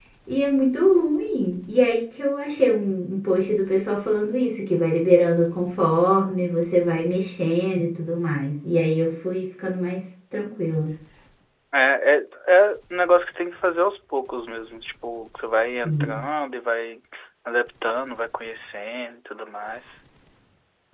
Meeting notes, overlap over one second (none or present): none